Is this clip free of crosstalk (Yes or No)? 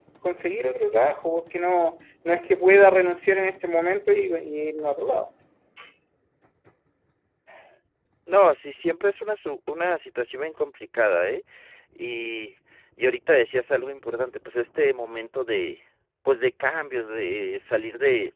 Yes